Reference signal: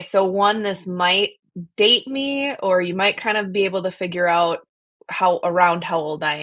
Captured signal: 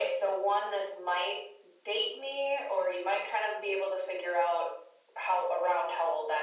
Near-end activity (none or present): none